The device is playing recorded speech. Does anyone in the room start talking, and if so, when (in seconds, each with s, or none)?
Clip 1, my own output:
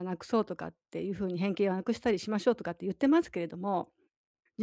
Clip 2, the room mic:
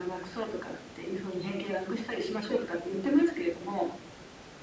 none